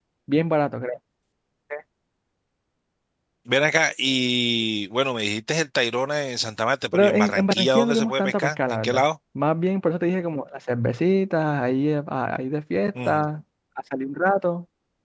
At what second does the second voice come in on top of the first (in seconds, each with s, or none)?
6.9 s